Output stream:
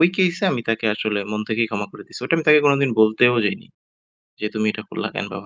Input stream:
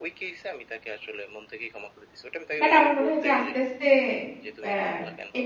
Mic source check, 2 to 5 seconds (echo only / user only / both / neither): both